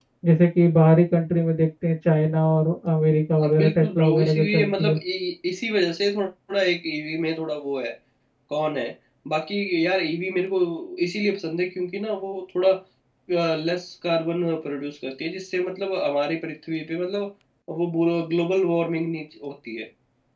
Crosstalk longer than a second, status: present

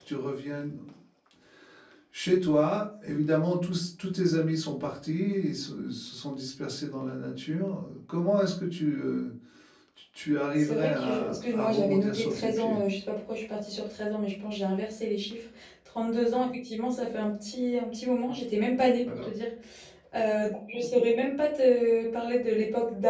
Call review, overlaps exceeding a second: present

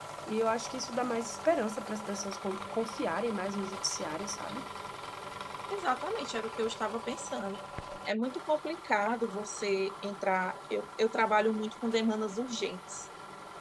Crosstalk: none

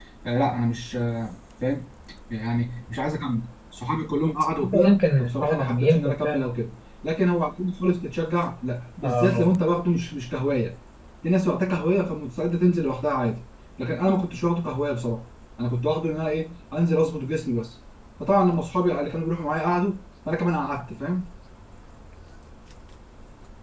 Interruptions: present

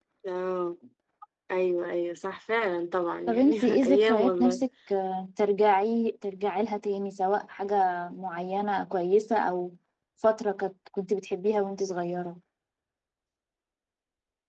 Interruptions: present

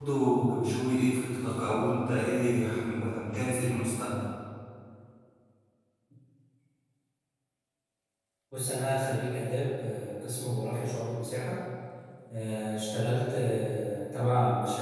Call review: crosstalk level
none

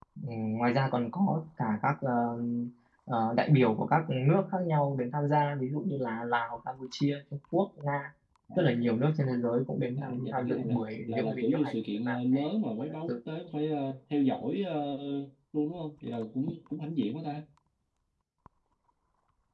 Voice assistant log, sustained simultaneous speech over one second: present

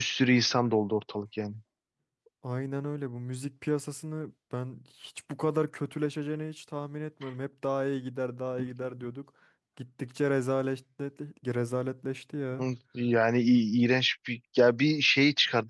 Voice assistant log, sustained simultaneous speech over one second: none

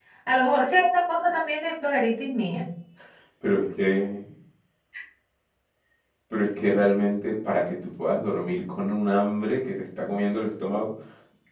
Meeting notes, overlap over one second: none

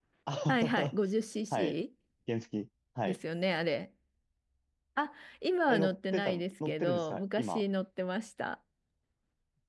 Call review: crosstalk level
present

